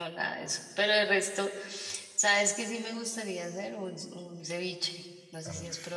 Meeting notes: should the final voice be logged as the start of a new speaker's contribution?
Yes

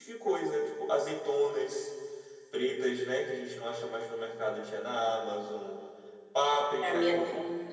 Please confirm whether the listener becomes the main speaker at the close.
Yes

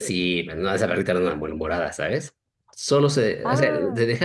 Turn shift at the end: No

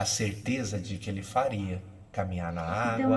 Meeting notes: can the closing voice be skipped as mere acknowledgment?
No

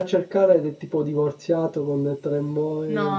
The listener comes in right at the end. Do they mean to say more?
Yes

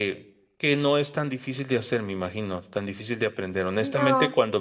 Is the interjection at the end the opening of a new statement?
No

